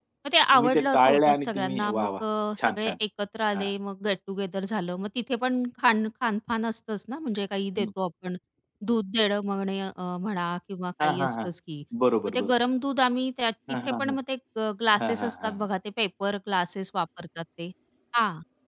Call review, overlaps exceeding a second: present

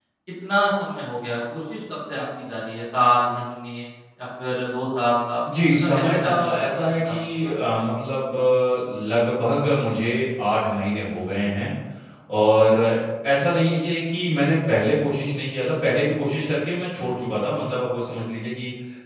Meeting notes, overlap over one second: present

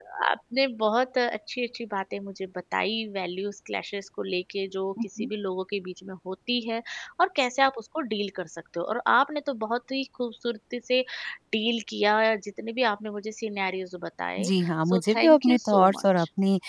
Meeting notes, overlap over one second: present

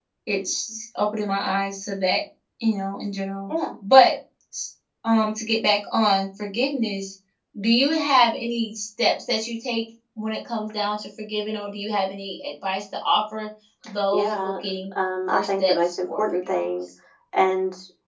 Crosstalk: present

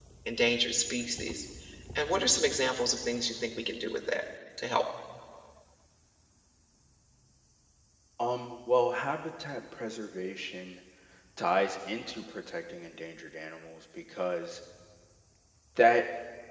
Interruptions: none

